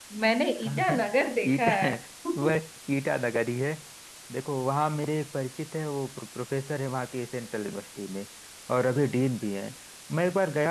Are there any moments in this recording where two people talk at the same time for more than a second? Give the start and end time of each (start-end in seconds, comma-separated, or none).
none